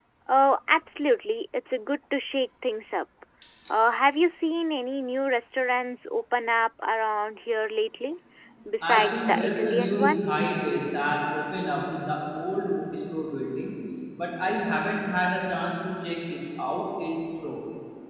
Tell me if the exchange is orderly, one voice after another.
No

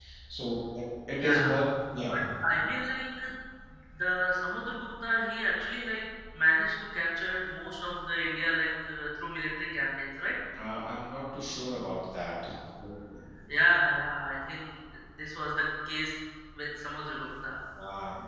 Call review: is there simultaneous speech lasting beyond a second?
No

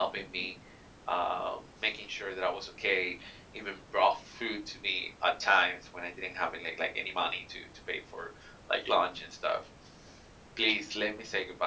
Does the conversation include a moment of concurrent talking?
No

